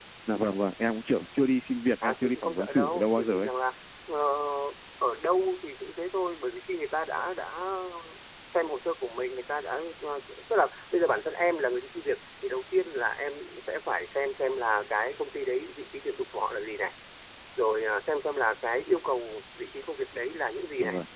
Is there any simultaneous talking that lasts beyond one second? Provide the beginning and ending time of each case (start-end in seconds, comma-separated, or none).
2.0-3.5